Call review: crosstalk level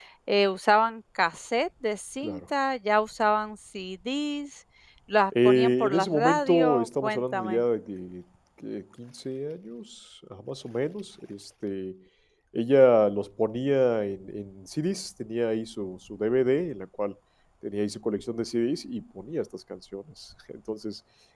present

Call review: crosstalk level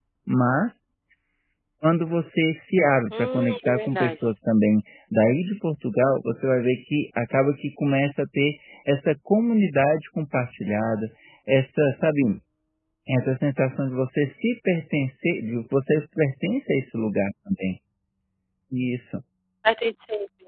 present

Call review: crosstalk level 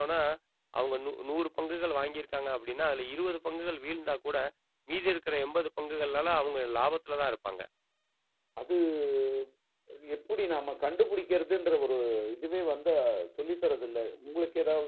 none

